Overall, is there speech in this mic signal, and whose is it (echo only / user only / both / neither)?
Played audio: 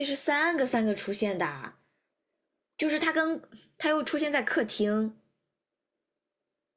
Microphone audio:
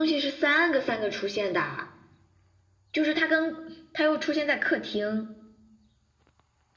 echo only